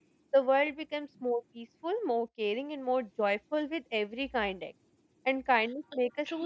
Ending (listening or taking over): taking over